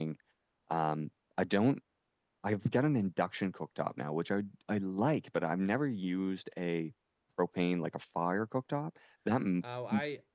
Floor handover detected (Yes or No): Yes